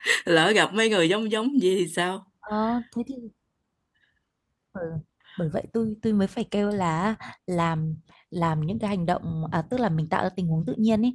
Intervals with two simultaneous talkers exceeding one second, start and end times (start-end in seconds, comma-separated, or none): none